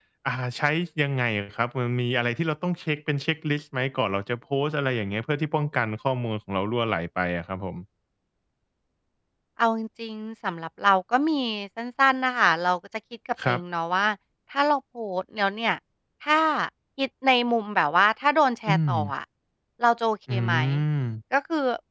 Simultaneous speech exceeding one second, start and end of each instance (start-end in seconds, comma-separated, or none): none